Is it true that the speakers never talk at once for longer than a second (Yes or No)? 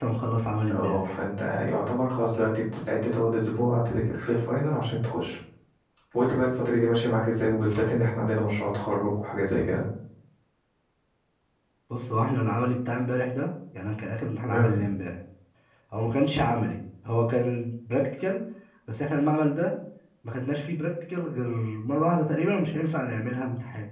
Yes